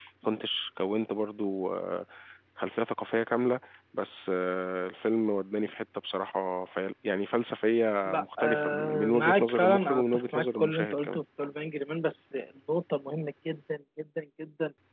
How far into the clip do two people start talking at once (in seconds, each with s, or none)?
8.1 s